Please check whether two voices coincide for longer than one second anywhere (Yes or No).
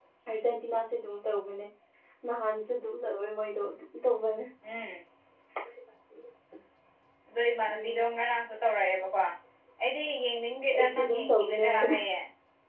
Yes